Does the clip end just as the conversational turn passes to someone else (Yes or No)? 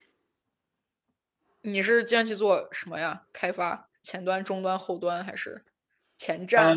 Yes